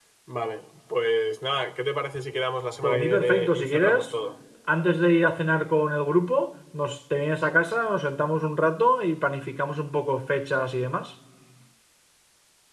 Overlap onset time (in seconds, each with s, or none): 2.8 s